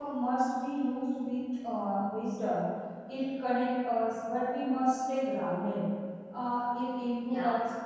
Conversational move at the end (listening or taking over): listening